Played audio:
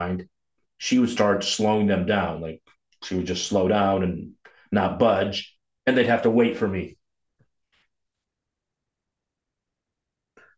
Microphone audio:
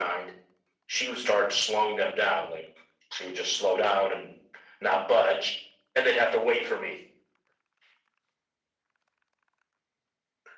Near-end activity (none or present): none